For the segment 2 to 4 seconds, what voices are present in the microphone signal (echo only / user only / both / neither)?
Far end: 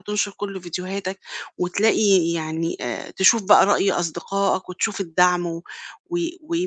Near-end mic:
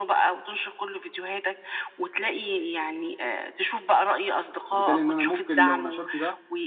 echo only